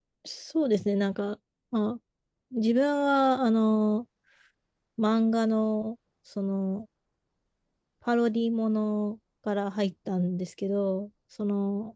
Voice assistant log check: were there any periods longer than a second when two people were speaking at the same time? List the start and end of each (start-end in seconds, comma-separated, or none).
none